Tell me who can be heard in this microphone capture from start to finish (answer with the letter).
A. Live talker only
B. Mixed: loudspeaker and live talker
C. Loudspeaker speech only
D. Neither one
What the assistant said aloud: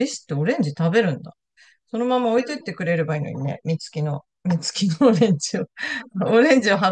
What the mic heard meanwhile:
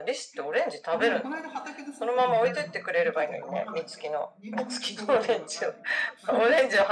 B